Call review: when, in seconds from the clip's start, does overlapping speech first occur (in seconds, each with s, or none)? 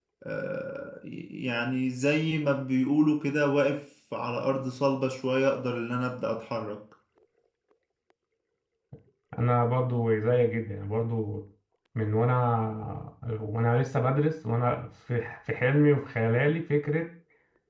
none